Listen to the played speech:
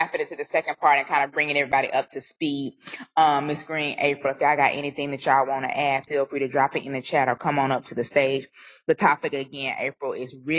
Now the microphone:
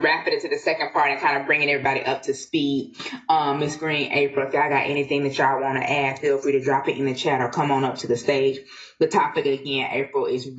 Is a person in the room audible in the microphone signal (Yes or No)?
No